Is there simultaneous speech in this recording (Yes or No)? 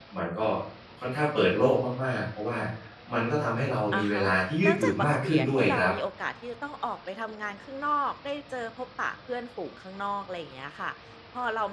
Yes